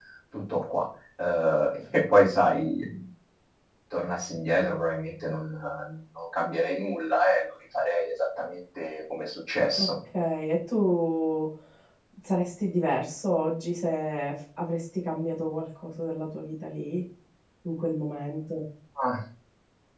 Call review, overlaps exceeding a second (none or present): none